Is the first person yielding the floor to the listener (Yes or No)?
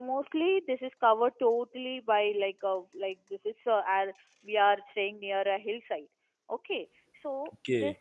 No